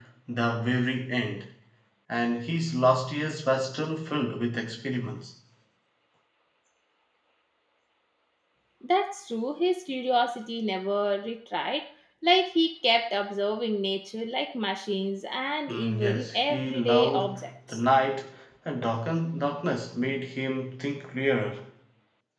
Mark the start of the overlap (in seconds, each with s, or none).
15.7 s